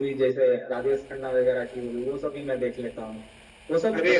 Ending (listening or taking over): listening